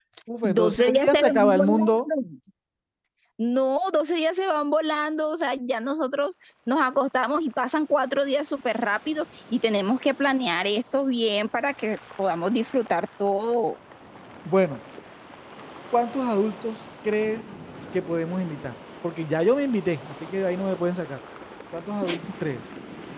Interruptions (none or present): present